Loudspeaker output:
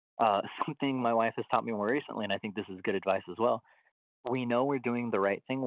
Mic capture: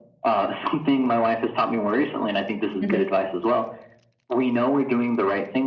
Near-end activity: present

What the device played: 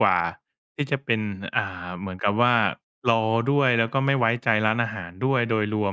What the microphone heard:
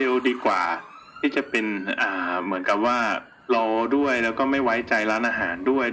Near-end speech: none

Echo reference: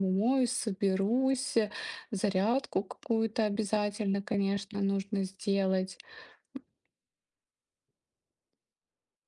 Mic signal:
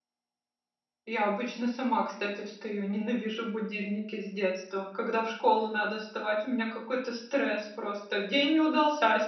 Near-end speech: present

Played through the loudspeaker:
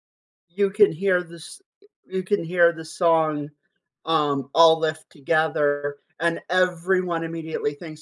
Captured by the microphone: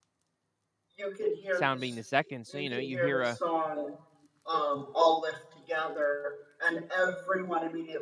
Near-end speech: present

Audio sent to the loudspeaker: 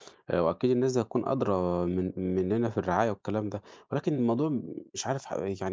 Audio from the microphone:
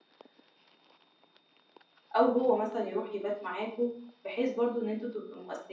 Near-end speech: present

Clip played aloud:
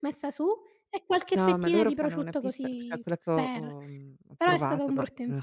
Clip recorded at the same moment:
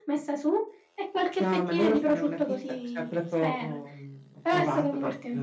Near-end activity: none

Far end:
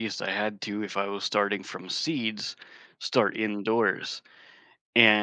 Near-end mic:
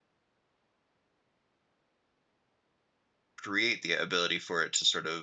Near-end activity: present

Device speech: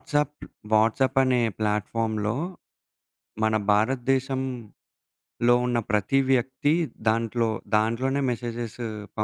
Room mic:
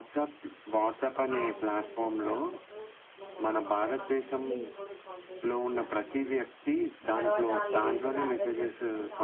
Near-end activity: present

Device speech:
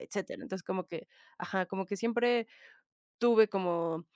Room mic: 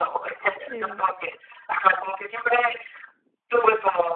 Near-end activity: present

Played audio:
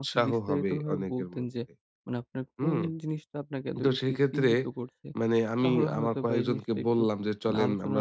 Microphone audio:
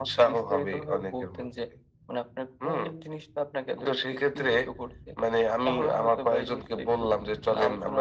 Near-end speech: none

